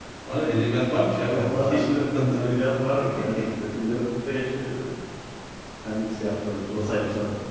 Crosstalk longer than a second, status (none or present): present